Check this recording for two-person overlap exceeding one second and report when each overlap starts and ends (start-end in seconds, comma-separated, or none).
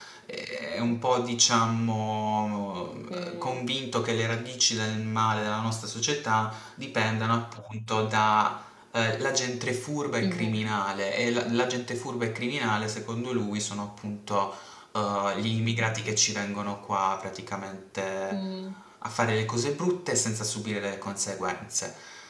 none